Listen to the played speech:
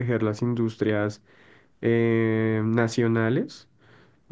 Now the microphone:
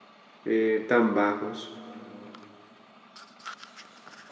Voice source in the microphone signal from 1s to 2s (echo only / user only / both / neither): user only